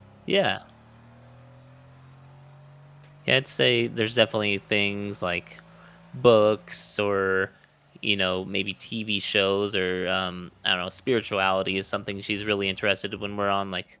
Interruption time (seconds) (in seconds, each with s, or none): none